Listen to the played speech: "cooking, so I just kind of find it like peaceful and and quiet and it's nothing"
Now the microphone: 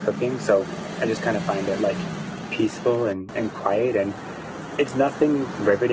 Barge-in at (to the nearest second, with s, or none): none